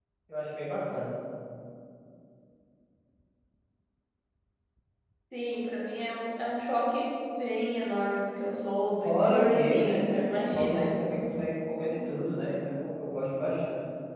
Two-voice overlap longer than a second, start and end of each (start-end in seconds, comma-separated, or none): 9.0-10.9